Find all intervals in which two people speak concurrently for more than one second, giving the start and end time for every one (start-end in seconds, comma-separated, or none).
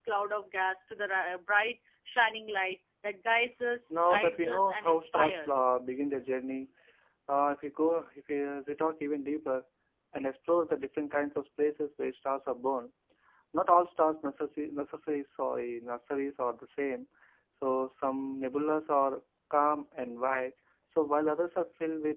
4.0-5.7